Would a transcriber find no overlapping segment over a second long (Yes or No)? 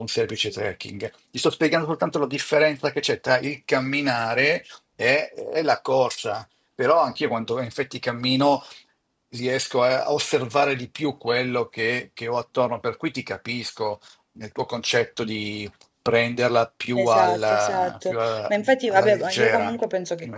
No